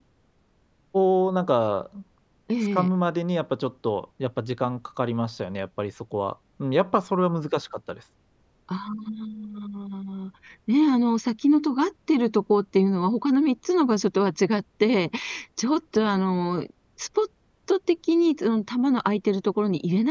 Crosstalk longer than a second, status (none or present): none